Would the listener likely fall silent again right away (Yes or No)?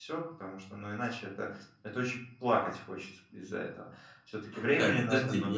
No